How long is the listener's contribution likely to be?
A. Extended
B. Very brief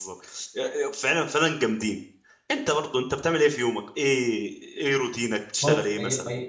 A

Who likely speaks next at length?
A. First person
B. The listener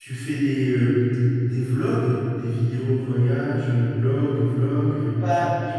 B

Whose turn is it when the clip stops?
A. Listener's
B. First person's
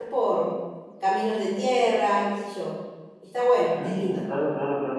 A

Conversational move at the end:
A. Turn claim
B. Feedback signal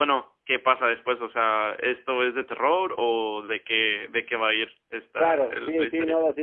A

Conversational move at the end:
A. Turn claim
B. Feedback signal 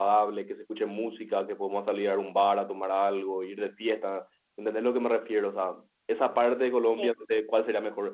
B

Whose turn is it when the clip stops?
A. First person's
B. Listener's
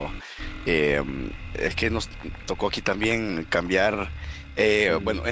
A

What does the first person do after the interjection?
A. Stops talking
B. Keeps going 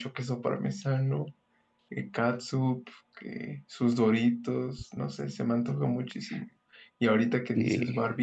B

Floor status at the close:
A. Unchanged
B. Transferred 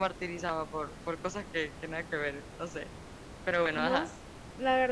B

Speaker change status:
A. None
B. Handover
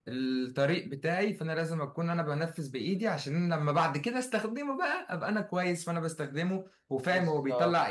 A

